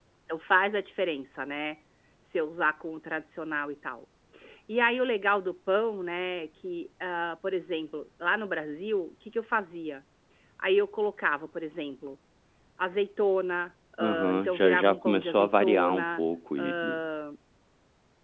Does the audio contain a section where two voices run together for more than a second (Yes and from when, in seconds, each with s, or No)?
Yes, from 14.0 s